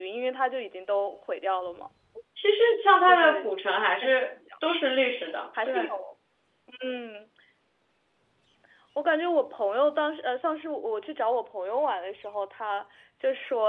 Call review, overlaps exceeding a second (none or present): none